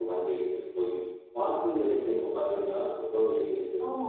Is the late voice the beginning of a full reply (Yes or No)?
Yes